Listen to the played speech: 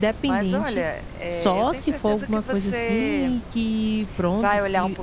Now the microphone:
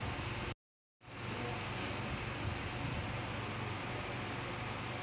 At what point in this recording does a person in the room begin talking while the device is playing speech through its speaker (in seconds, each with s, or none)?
none